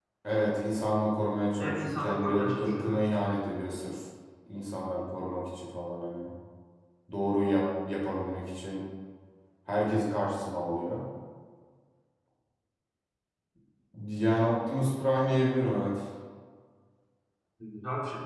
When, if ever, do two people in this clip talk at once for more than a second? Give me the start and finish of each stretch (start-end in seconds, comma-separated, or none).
1.6-3.0